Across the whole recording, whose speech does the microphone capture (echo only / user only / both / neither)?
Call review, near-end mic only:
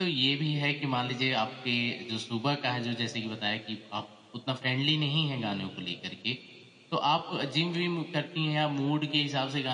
user only